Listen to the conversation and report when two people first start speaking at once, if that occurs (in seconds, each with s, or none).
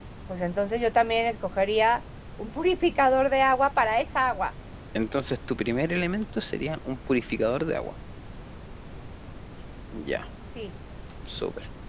none